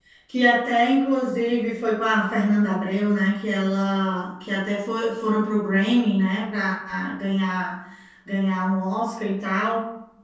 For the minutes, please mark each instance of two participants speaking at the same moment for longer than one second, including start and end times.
none

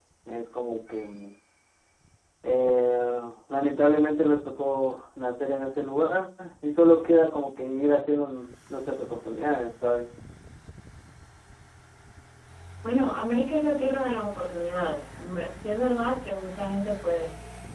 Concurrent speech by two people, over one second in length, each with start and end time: none

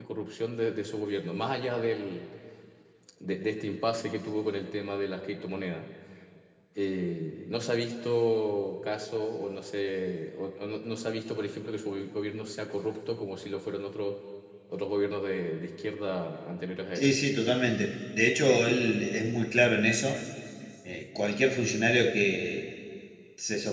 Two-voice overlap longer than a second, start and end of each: none

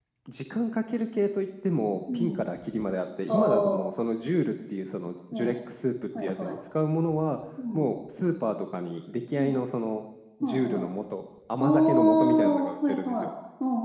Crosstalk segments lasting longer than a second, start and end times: 11.6-13.1

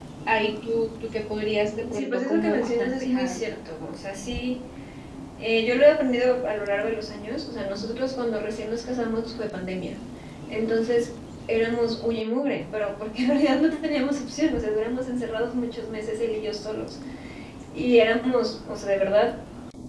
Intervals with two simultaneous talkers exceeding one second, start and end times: 1.9-3.4

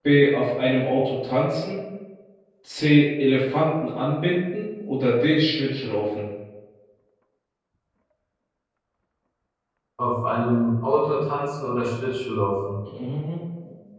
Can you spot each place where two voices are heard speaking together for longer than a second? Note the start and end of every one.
none

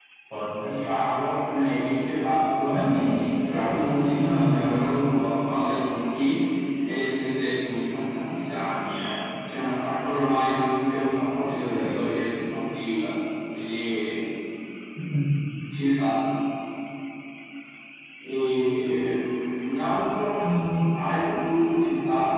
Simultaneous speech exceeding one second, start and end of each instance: none

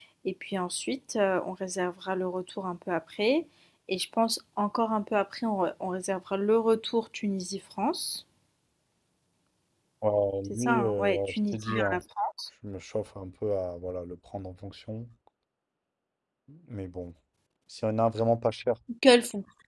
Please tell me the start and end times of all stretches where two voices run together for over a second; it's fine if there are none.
10.5-12.0

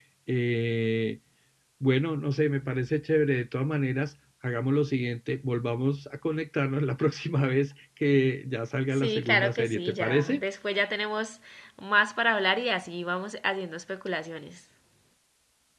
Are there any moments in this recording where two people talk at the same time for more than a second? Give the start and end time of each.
8.9-10.4

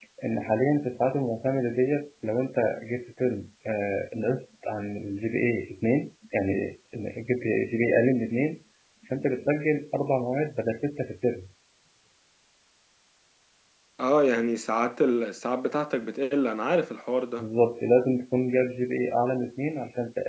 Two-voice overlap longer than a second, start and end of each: none

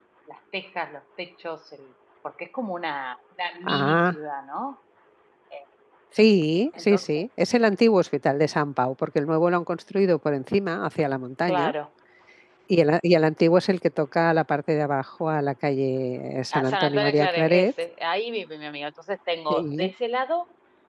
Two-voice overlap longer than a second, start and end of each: 16.5-17.7

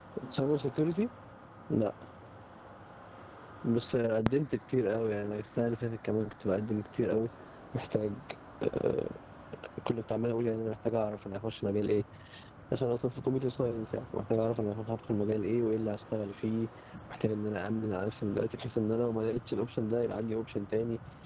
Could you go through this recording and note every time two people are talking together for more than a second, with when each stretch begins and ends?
none

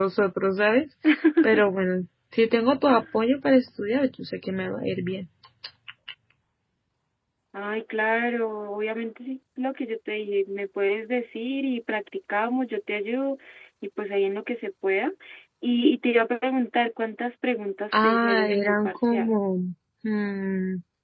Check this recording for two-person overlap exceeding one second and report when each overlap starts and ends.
18.0-19.4

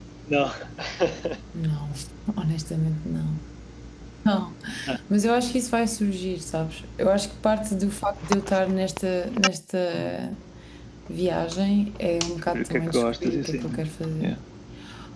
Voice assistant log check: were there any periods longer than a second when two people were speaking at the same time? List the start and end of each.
12.5-13.8

